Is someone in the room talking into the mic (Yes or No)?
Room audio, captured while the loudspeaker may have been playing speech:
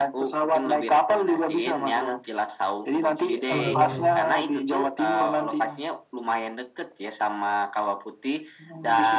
Yes